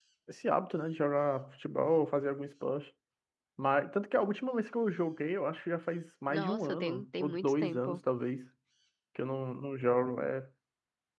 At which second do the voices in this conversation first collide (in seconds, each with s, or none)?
6.3 s